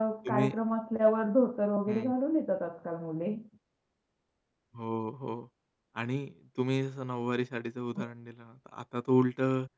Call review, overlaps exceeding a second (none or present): none